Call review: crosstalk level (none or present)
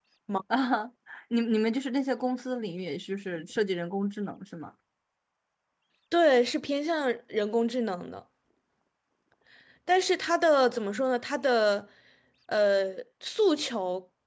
none